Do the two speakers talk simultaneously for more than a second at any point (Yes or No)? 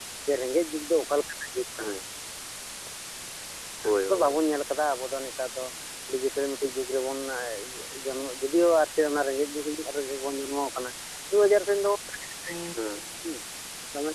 No